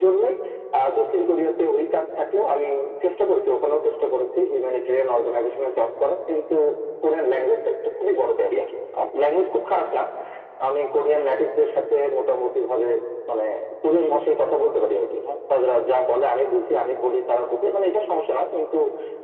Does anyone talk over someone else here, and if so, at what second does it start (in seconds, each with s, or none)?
none